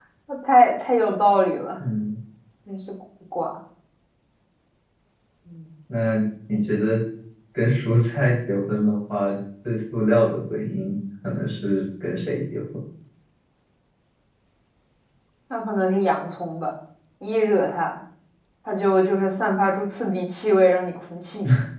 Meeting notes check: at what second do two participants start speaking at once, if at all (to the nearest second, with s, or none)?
none